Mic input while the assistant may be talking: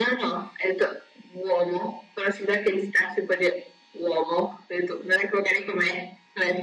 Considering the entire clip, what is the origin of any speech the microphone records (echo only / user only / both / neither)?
echo only